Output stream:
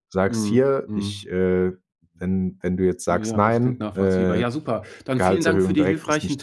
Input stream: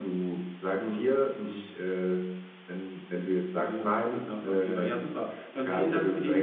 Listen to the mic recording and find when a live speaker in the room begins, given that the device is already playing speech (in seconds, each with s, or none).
none